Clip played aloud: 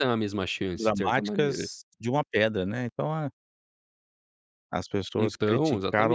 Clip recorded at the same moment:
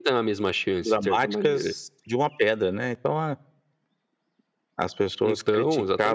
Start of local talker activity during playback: none

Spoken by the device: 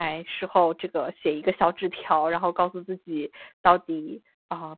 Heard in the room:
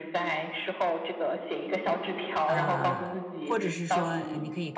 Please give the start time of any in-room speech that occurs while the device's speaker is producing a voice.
2.4 s

